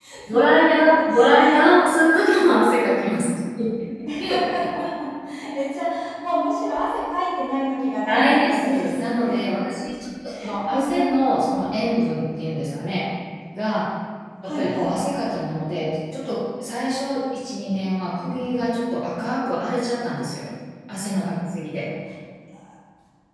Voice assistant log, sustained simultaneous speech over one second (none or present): present